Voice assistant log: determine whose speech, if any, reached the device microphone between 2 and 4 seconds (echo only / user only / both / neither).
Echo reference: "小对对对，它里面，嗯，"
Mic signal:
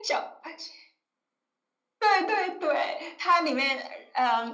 echo only